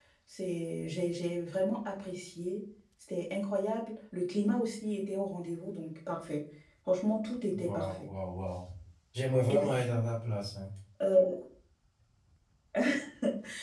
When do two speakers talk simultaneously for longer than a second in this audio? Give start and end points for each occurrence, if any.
none

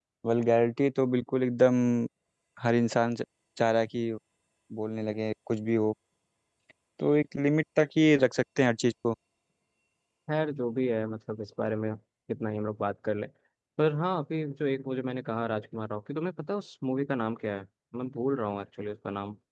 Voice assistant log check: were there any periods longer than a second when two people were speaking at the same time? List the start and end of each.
none

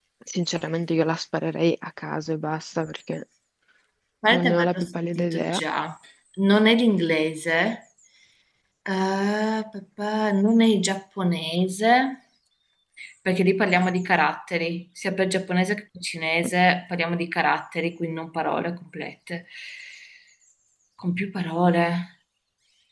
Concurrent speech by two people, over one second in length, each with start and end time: 4.3-5.6

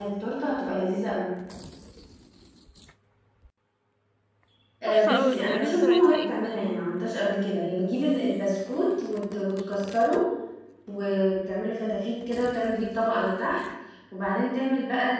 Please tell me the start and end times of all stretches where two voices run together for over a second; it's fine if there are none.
4.9-6.4

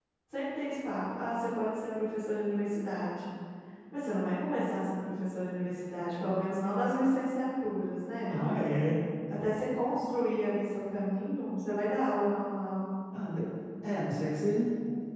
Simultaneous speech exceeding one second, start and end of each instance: none

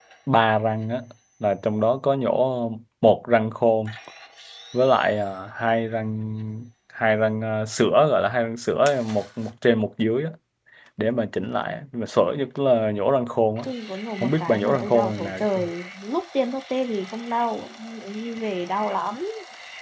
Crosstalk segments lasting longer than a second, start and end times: 14.2-15.7

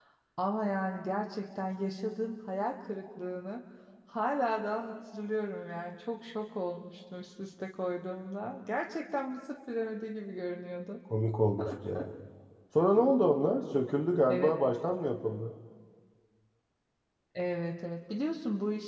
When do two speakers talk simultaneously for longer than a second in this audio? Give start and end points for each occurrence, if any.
none

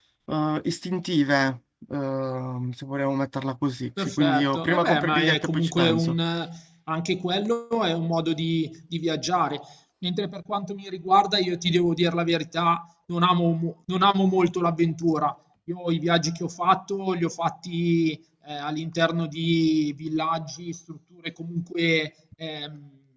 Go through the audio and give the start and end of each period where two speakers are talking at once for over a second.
4.0-6.2

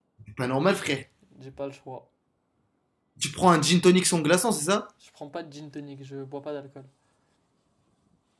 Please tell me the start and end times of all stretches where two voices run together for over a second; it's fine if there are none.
none

